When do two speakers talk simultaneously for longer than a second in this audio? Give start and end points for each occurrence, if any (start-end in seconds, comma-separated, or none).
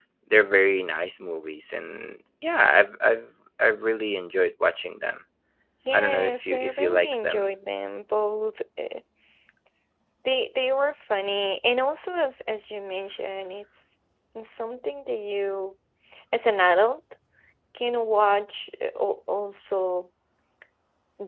5.9-7.5